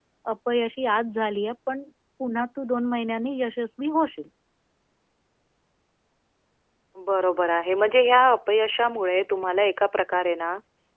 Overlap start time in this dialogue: none

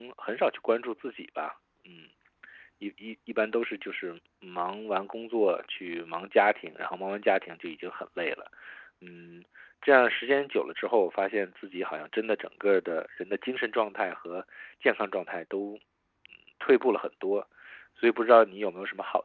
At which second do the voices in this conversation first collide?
none

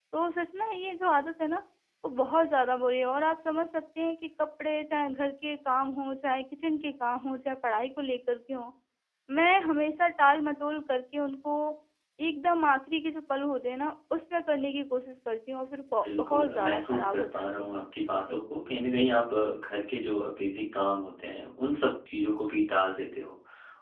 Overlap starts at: 16.0 s

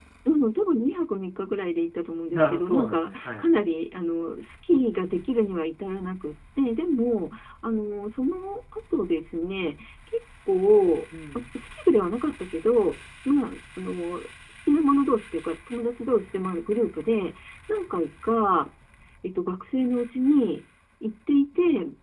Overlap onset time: 2.3 s

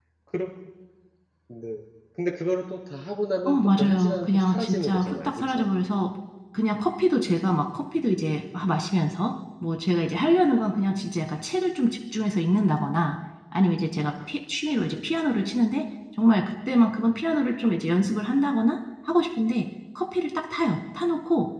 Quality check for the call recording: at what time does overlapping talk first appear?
3.5 s

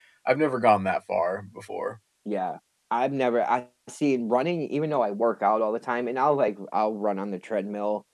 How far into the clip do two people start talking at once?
none

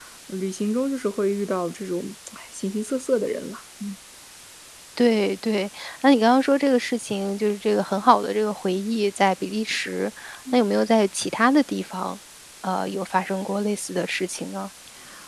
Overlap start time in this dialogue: none

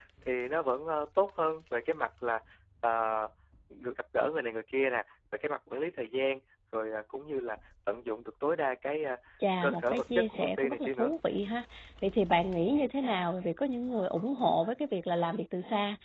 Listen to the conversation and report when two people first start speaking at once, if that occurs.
9.6 s

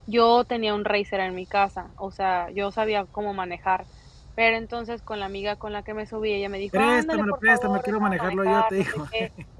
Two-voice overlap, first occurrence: 6.7 s

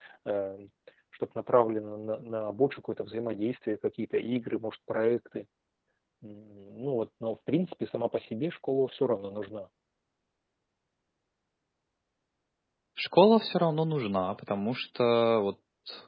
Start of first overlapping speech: none

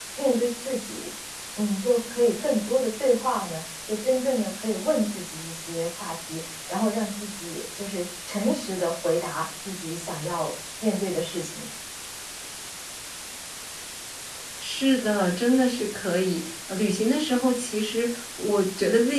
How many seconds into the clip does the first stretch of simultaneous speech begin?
none

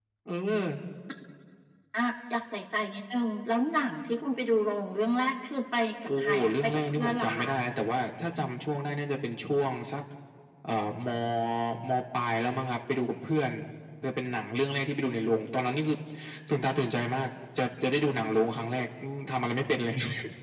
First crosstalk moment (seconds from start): 6.1 s

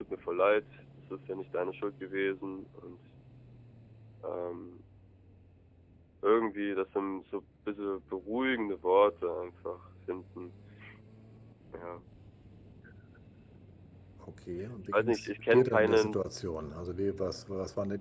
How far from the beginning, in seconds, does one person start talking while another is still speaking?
14.9 s

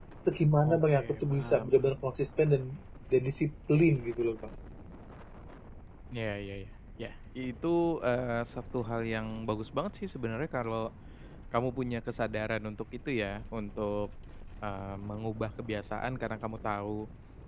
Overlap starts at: 0.6 s

